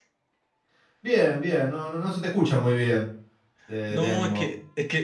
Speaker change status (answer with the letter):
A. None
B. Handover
B